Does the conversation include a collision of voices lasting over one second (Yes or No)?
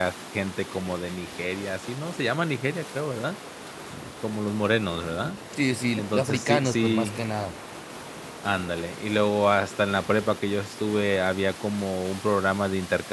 Yes